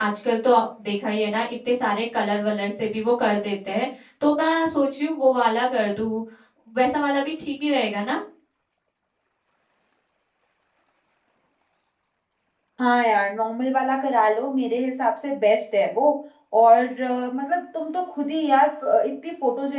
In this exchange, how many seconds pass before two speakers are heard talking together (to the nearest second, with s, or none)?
none